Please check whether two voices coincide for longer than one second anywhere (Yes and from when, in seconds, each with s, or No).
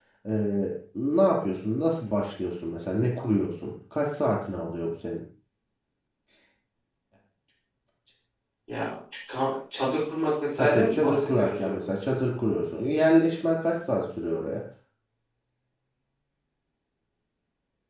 Yes, from 10.6 s